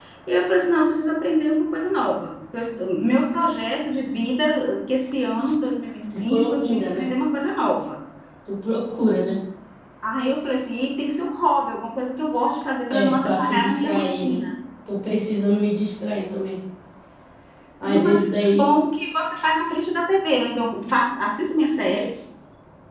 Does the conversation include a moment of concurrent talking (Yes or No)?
Yes